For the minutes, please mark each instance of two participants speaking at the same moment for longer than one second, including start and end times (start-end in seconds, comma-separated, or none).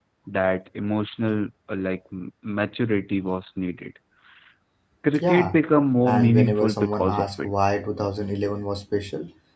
6.0-7.5